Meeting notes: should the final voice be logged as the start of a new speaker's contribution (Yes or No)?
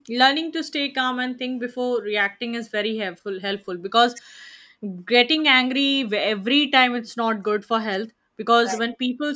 No